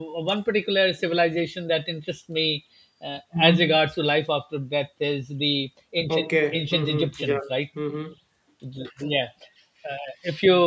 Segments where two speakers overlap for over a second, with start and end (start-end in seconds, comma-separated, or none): 6.1-7.4